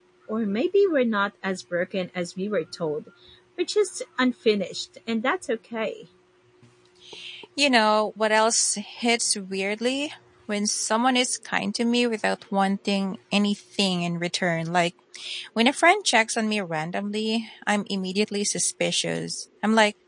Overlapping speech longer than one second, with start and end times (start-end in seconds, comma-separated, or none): none